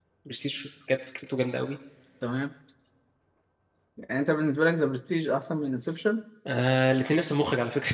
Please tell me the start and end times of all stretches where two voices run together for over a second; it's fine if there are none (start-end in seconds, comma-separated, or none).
none